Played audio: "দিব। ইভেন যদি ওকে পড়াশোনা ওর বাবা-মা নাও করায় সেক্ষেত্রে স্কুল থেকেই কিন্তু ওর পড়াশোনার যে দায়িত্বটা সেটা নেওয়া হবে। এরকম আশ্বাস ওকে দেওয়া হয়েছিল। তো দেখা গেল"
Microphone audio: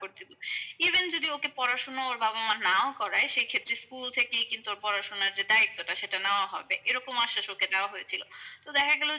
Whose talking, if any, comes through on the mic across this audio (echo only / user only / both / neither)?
echo only